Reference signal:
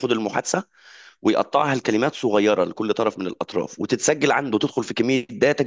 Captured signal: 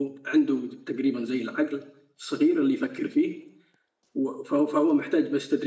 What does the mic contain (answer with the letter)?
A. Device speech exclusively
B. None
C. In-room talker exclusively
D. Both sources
C